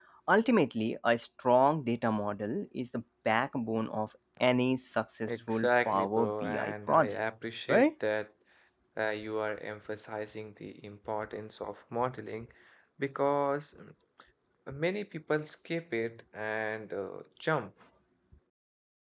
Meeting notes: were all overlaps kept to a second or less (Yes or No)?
No